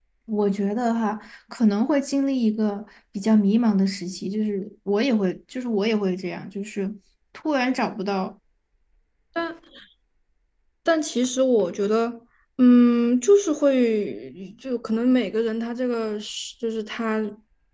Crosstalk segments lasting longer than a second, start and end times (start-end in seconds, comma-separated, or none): none